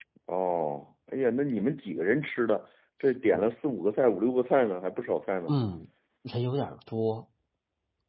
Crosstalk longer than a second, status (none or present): none